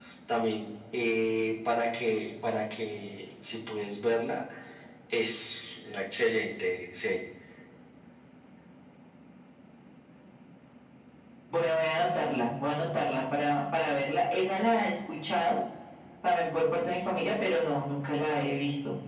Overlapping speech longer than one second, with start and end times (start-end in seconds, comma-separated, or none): none